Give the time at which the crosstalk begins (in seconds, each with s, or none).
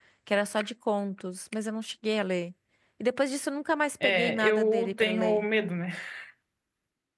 4.0 s